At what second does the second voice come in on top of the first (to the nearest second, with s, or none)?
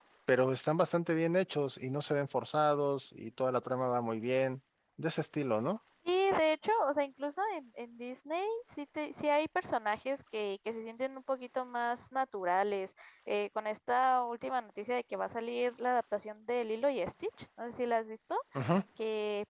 none